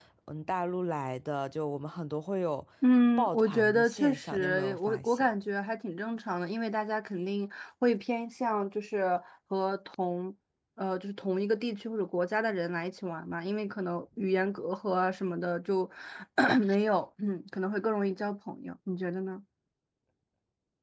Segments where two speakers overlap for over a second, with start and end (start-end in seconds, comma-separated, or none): 3.2-5.3